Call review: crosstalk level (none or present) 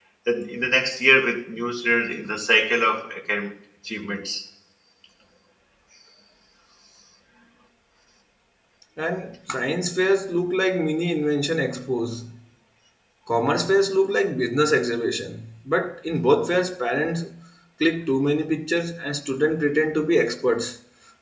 none